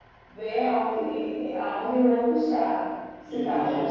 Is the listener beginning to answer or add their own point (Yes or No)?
No